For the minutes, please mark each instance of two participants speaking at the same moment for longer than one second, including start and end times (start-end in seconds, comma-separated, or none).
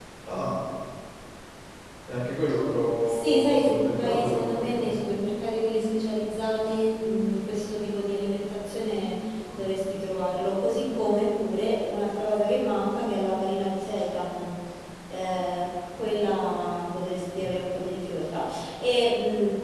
3.1-5.0